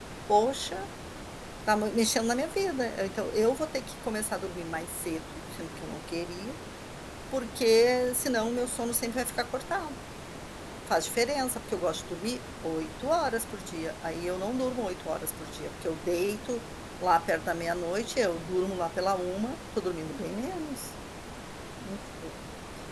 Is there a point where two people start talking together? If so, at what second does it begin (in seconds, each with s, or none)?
none